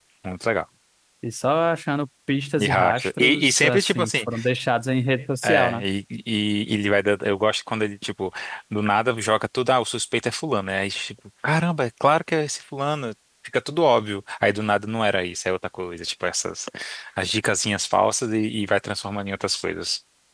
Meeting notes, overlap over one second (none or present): present